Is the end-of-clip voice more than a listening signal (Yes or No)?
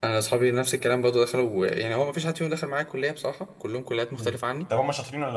Yes